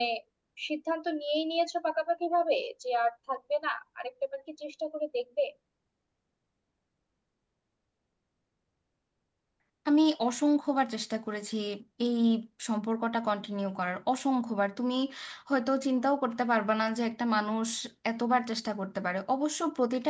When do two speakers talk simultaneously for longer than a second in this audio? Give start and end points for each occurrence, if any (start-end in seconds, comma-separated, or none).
none